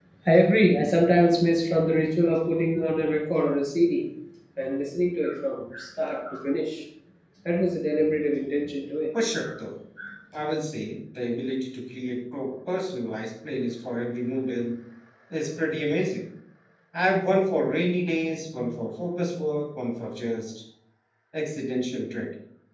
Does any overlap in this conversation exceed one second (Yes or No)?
No